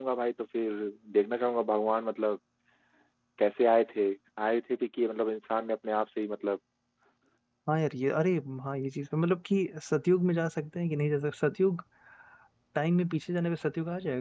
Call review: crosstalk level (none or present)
none